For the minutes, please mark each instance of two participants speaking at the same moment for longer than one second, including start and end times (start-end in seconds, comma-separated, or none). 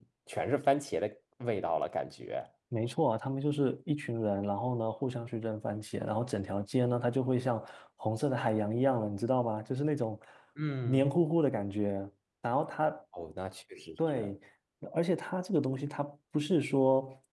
none